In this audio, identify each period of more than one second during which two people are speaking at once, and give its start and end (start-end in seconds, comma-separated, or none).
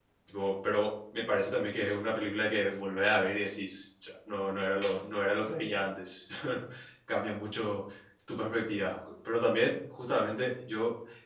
none